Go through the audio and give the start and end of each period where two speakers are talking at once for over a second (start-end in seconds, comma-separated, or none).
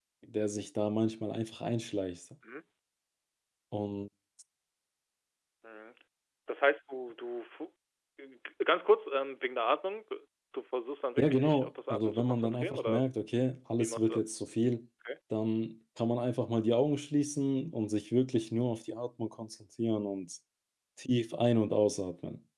11.2-13.0